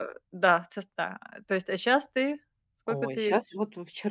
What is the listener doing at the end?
taking over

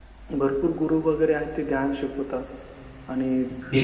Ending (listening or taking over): listening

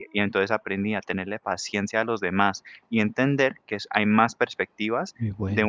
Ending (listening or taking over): listening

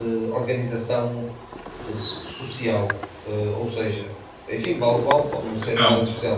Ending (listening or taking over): listening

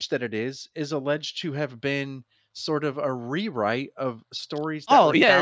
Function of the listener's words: taking over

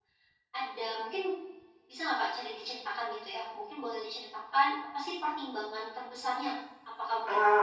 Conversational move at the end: listening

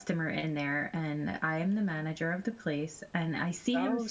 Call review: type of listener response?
taking over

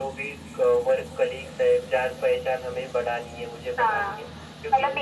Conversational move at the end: taking over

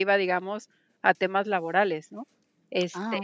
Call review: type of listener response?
listening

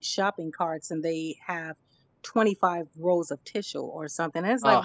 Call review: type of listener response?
listening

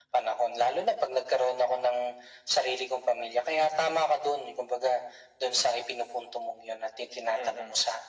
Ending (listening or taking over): taking over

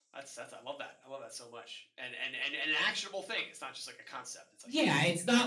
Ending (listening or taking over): taking over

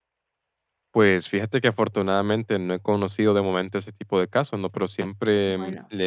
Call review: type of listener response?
listening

